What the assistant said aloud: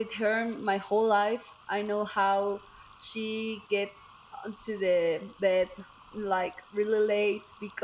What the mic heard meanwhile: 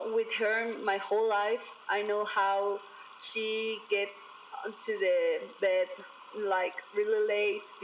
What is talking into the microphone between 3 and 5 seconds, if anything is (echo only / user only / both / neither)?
echo only